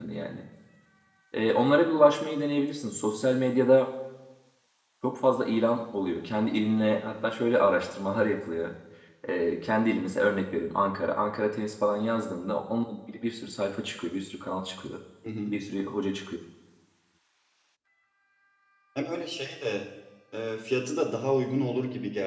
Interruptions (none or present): none